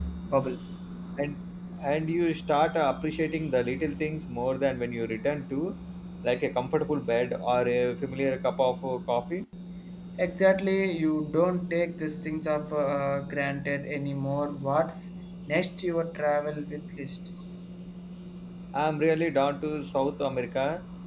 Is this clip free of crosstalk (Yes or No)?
Yes